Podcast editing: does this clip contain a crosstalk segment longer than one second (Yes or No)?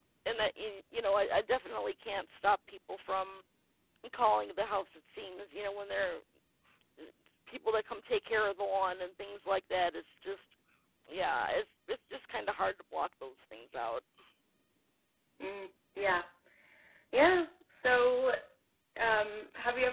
No